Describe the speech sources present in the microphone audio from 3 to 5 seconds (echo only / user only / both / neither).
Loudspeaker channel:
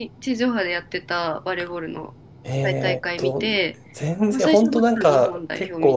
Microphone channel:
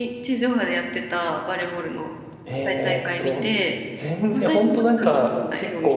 echo only